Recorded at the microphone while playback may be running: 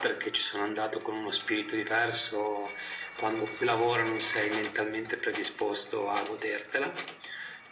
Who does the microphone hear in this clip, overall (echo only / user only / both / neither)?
echo only